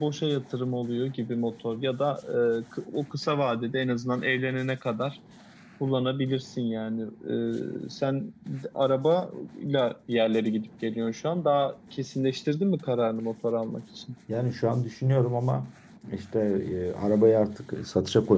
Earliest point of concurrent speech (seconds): none

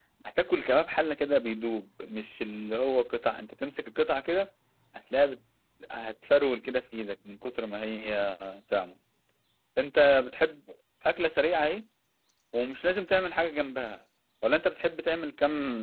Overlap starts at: none

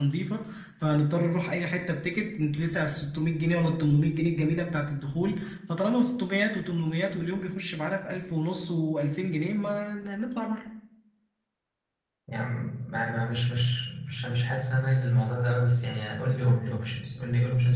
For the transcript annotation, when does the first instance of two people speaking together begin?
none

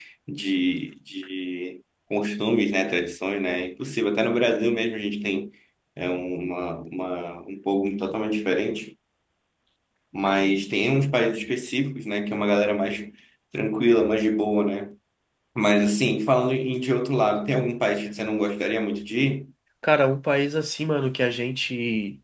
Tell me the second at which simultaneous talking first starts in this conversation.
none

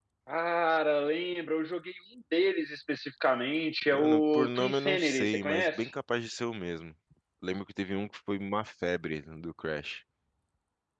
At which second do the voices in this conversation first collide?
3.8 s

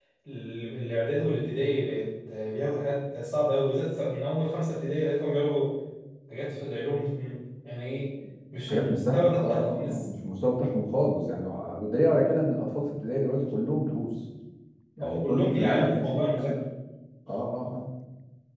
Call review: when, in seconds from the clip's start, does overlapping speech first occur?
8.7 s

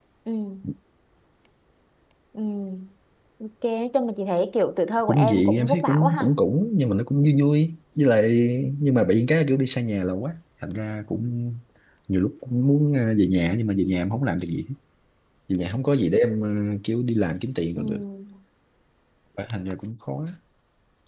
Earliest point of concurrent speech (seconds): 5.1 s

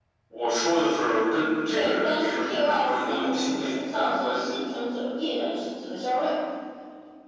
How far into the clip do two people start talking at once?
1.7 s

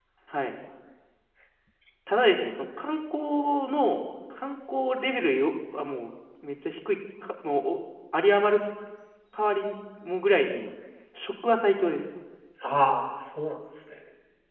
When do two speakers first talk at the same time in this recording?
none

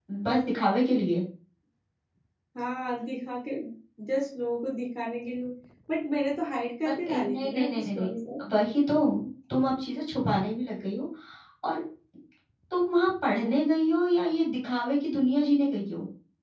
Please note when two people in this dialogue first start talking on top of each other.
6.8 s

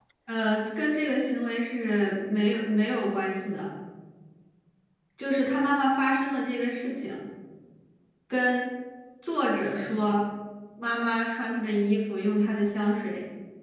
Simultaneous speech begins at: none

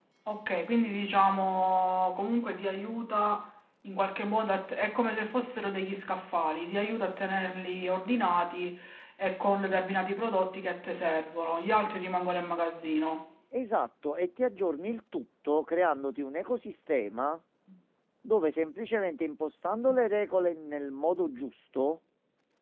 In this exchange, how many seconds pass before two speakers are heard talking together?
none

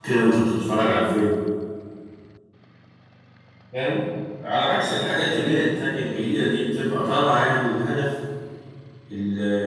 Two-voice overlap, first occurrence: 4.6 s

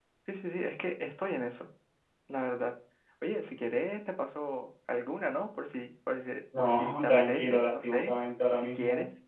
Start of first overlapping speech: 6.5 s

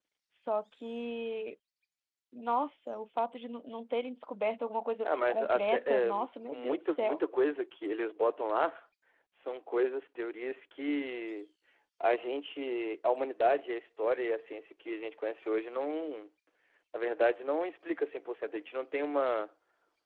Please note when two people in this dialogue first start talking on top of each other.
5.0 s

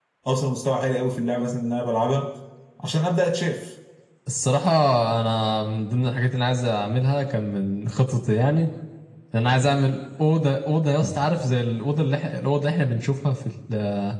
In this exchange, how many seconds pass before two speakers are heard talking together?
none

